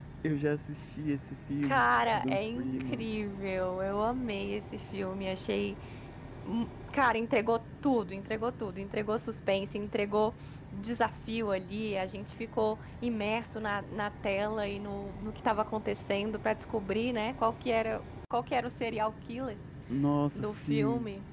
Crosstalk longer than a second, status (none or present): present